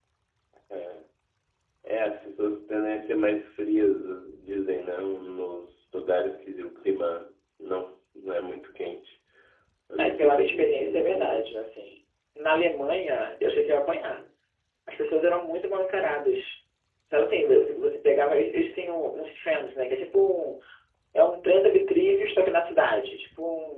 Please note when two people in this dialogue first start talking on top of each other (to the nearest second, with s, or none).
10 s